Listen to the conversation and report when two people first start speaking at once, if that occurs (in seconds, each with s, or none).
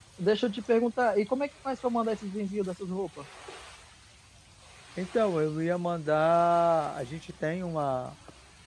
none